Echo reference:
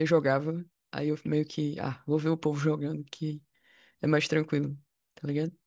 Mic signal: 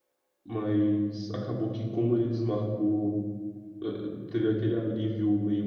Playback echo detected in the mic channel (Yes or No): No